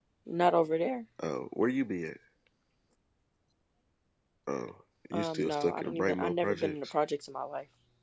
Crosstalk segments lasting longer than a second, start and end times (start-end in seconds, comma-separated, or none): 5.1-6.9